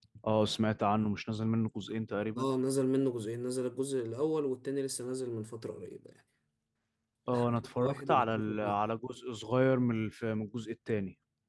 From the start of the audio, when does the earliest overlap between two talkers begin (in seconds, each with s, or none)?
7.3 s